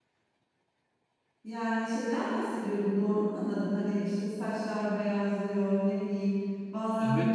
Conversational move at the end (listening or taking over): listening